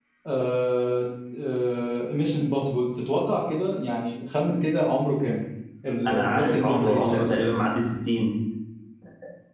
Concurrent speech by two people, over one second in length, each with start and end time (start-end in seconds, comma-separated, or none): 6.1-7.5